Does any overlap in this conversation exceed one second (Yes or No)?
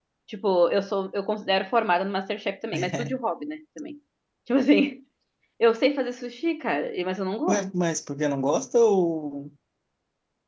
No